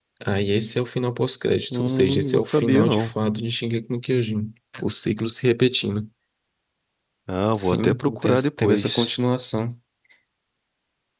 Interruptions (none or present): present